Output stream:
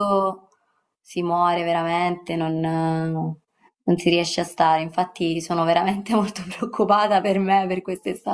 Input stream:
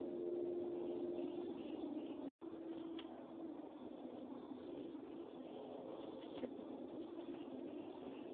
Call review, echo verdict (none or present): none